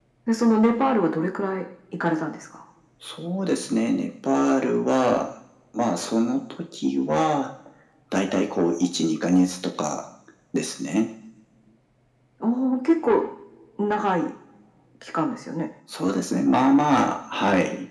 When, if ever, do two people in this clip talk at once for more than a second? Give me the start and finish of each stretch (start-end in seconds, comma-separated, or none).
none